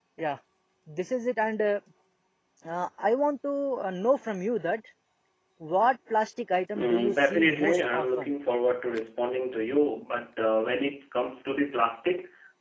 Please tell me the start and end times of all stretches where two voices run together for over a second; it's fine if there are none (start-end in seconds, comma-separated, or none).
6.8-8.3